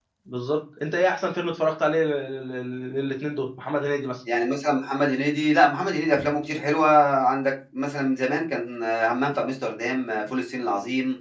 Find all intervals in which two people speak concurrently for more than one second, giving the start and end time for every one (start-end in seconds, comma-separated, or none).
none